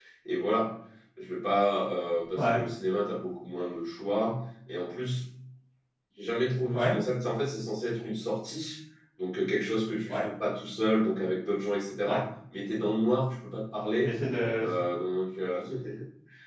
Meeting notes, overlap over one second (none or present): none